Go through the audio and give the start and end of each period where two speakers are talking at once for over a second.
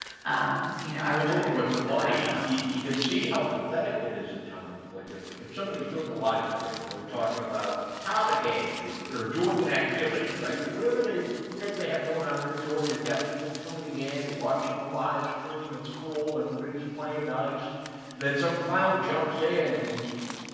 1.1-2.5

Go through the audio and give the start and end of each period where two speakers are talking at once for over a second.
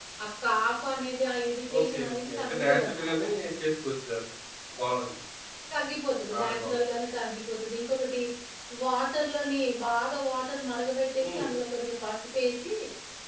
1.8-3.1

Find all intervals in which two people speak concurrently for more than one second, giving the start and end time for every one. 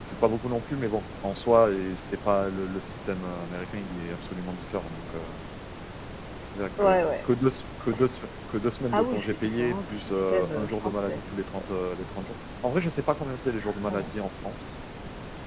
8.9-11.2

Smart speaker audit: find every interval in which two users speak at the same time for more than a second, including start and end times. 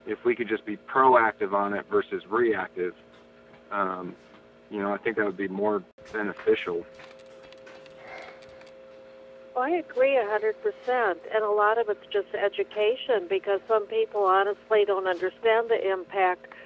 none

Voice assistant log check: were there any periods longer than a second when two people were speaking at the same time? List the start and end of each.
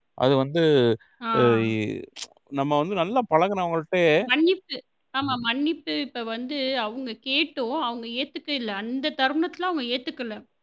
none

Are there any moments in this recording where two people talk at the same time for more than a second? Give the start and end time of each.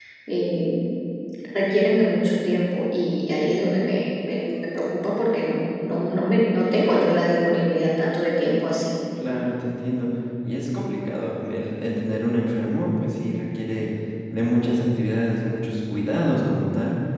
none

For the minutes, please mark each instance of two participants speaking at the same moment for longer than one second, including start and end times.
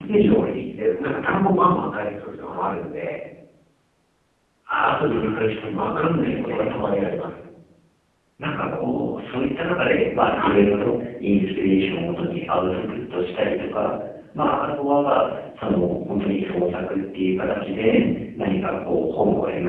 4.8-6.9

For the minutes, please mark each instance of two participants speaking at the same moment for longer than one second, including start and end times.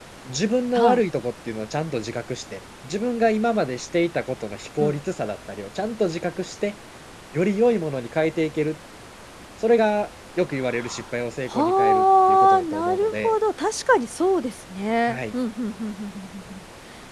11.5-13.4

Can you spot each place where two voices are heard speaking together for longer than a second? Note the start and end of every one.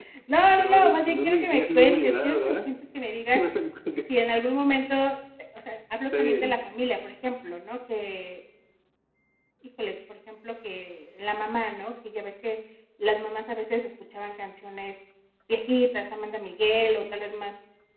0.5-2.5

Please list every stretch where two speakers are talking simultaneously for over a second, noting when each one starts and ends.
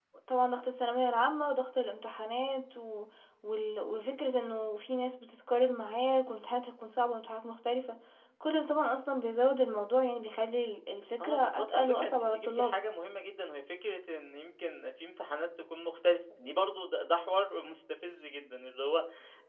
11.2-12.8

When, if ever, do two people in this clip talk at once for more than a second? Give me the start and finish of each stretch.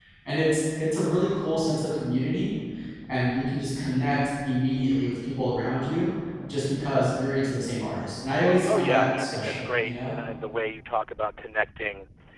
8.7-10.1

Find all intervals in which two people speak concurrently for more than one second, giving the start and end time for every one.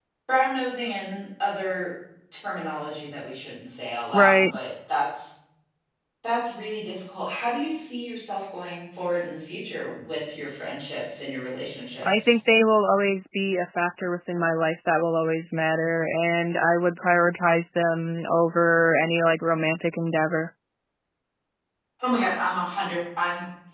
none

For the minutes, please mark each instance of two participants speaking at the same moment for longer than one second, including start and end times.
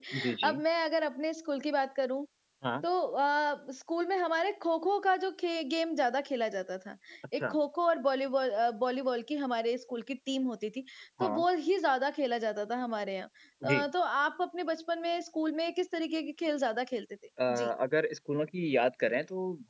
none

